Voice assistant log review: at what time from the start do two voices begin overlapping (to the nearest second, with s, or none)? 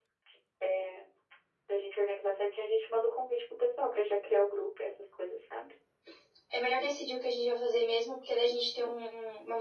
none